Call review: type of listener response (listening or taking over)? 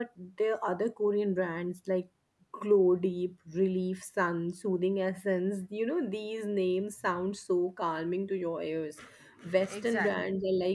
listening